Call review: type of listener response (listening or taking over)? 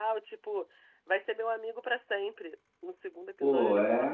taking over